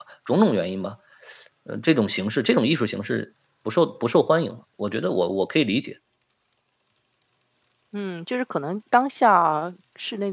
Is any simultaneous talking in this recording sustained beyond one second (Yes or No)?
No